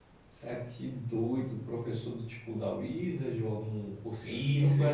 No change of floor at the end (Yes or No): No